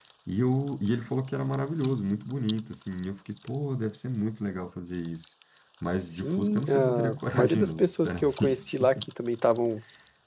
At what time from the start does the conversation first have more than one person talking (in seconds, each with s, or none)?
6.0 s